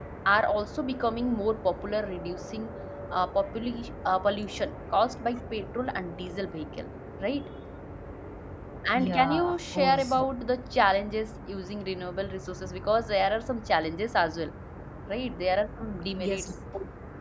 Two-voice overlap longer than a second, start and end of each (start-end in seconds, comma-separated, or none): 8.9-10.2